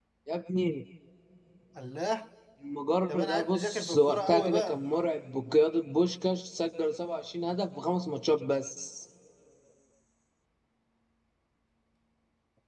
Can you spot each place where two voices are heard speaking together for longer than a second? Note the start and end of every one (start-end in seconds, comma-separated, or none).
3.1-4.8